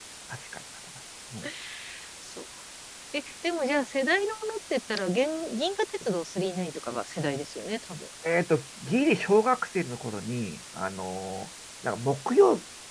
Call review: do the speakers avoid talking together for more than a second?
Yes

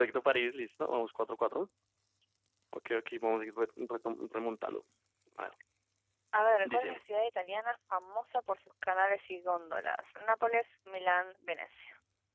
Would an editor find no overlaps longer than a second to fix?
Yes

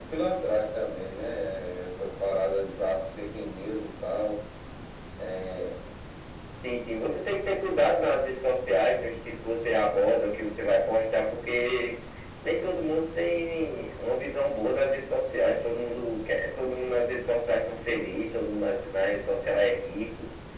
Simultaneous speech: No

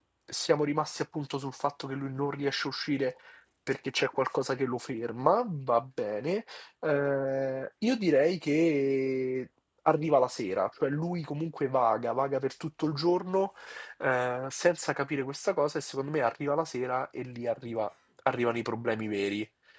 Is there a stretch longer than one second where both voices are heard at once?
No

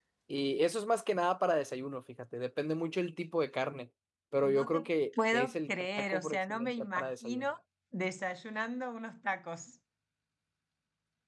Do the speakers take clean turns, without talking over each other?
No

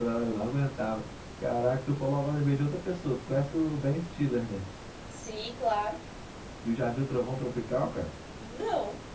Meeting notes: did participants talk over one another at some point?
No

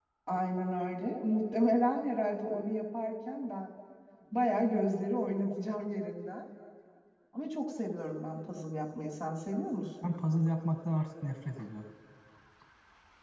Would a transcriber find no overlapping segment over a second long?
Yes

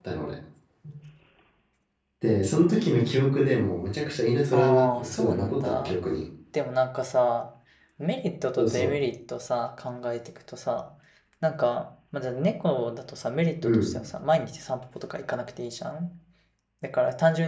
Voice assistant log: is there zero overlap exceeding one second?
No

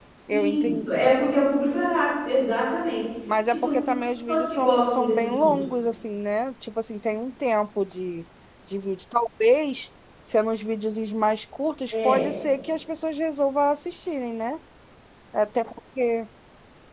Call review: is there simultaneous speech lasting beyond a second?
Yes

